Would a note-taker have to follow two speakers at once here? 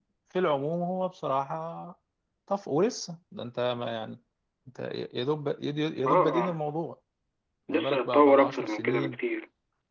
Yes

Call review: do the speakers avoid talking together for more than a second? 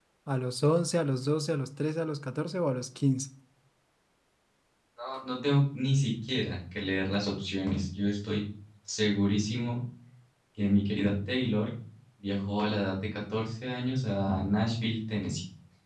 Yes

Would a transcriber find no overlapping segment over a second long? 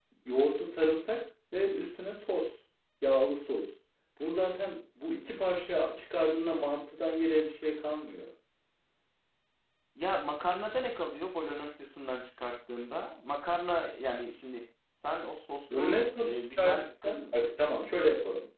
No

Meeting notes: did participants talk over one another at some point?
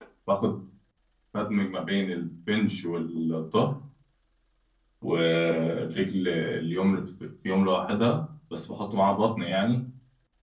No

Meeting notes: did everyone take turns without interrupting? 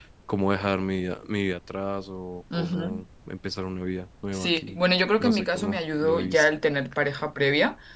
No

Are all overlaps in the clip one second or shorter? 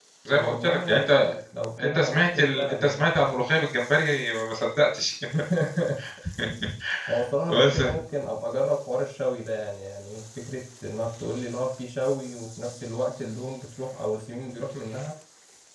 No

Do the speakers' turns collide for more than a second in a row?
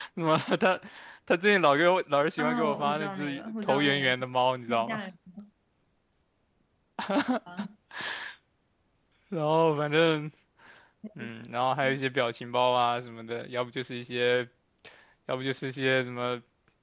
Yes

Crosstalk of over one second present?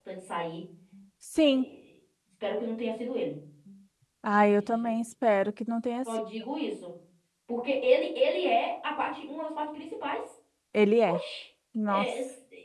No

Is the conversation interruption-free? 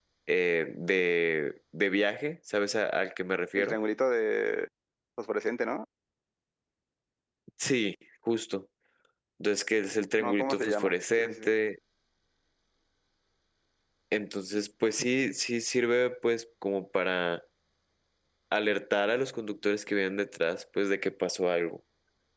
No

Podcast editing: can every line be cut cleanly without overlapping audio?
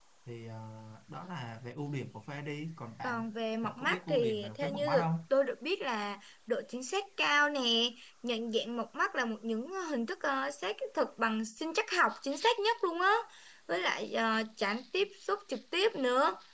No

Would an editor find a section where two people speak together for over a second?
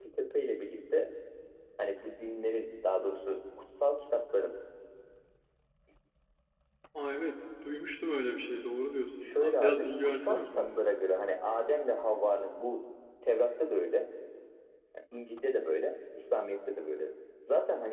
Yes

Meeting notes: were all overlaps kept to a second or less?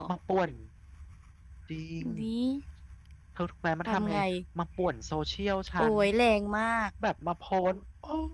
Yes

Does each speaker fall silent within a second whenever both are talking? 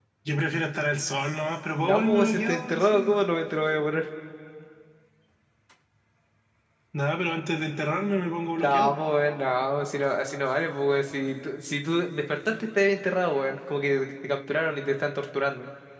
No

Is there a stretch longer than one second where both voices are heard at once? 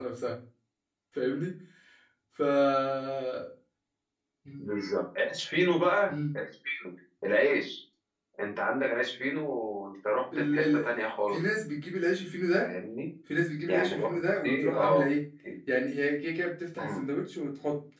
Yes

